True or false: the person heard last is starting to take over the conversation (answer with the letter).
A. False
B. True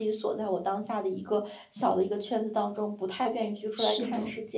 A